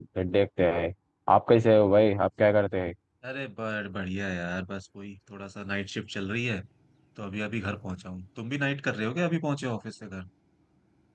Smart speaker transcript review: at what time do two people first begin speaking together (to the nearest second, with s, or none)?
none